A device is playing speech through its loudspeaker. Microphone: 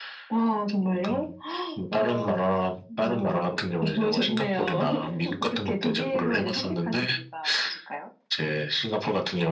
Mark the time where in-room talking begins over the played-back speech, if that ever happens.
none

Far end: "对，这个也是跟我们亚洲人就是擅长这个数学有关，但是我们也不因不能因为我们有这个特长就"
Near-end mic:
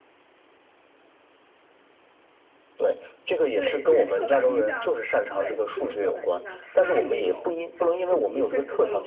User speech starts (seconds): 3.5 s

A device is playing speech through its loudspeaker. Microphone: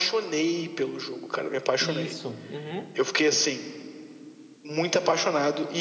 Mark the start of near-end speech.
1.8 s

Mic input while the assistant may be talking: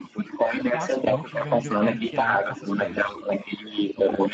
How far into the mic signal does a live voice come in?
0.6 s

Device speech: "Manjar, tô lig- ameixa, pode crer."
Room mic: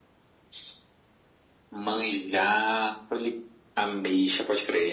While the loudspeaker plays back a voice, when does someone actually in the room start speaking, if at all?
none

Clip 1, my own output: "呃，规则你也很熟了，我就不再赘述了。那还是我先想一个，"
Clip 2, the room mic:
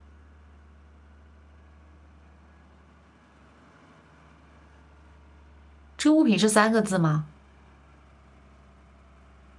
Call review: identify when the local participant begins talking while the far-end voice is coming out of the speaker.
6.0 s

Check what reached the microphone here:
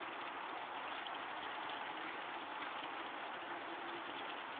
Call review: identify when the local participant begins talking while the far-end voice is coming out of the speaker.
none

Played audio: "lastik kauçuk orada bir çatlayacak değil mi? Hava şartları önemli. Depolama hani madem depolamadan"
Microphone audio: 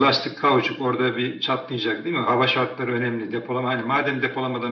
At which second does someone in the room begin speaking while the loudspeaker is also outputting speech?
none

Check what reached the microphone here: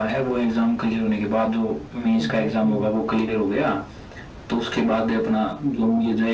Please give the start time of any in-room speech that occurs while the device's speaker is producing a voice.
2.2 s

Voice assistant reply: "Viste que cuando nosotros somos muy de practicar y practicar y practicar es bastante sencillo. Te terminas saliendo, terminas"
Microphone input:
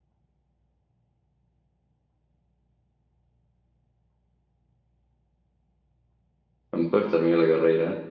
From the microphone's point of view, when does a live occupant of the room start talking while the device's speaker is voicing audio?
6.7 s

